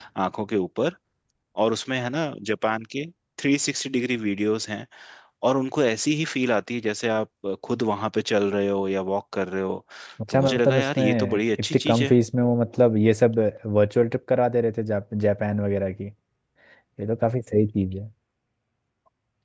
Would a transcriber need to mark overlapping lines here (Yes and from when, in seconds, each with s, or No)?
Yes, from 10.3 s